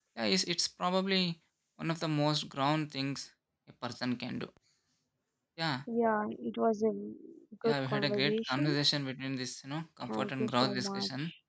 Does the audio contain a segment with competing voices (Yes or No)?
Yes